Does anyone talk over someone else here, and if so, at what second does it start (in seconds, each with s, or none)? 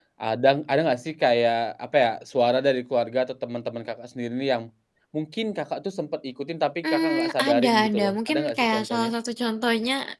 6.8 s